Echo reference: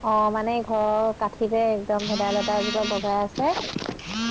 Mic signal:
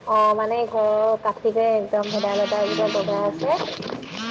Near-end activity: present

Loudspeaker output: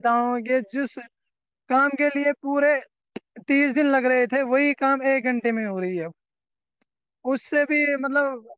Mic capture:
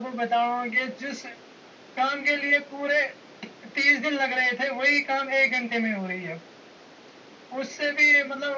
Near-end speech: none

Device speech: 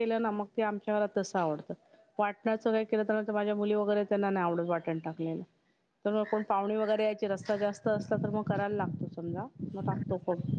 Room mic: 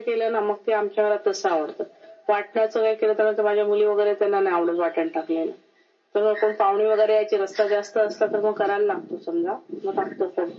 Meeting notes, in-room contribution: none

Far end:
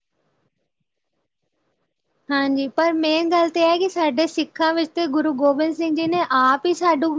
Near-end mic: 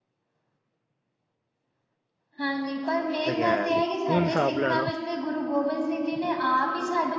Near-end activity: present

